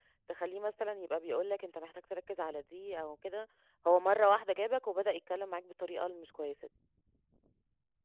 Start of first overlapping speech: none

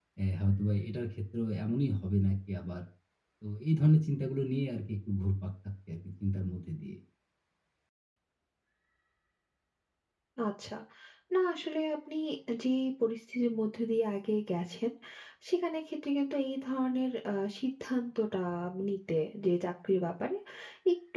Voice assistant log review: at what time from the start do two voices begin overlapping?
none

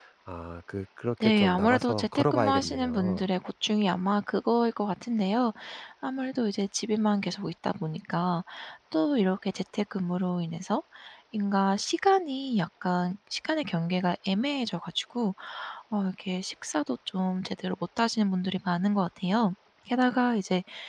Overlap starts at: 1.2 s

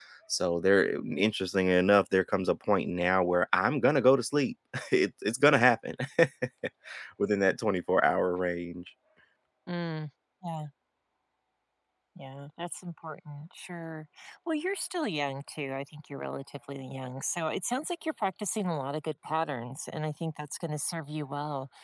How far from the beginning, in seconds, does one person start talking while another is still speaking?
none

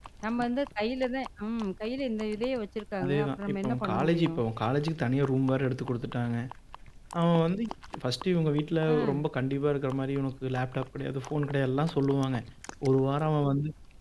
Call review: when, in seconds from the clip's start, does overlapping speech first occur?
3.0 s

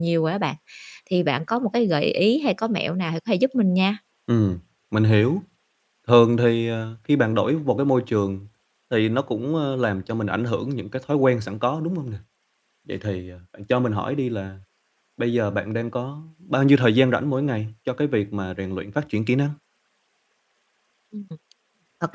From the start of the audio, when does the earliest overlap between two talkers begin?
none

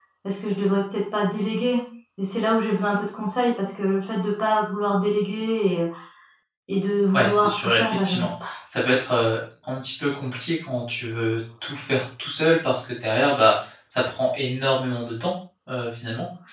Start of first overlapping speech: 7.1 s

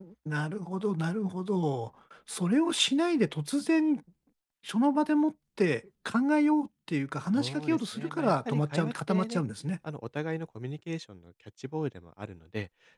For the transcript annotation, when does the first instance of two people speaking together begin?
7.3 s

